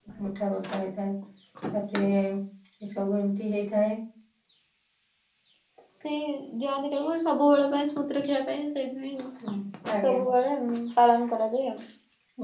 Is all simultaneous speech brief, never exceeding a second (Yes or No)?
Yes